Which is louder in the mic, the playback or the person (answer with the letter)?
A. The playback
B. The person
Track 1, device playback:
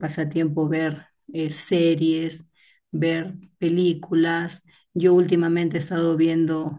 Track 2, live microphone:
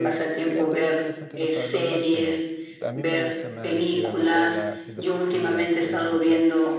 A